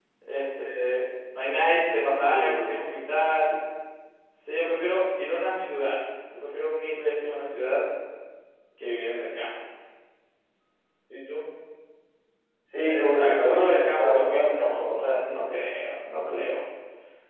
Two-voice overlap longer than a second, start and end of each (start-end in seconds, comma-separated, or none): 12.8-15.2